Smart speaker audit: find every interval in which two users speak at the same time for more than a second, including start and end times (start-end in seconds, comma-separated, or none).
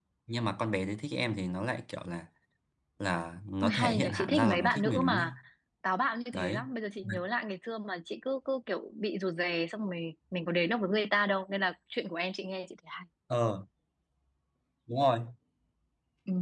3.6-5.3